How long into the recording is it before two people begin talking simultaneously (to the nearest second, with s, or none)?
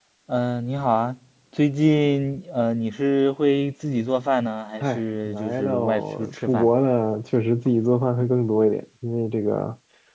5 s